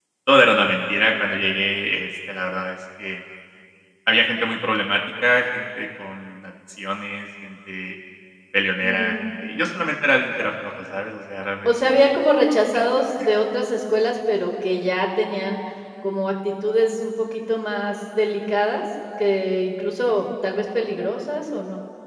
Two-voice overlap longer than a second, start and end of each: none

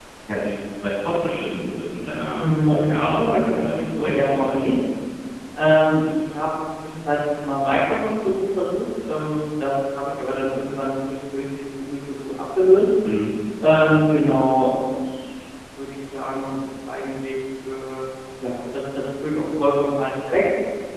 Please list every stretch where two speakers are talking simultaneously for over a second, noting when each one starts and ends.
2.4-4.6

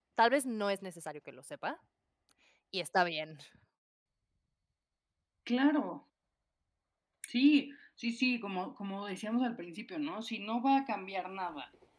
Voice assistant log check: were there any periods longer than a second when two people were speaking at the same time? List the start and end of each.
none

